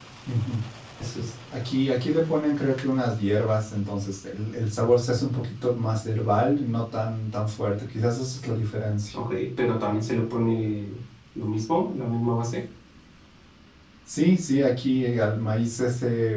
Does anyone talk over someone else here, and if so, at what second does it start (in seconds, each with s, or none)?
none